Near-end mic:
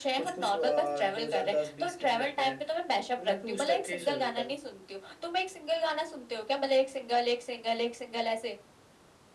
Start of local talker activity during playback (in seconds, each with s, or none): none